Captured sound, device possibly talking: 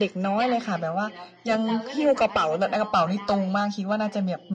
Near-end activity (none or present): present